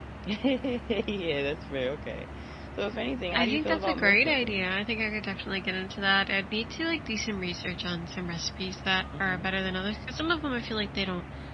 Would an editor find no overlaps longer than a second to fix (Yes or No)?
No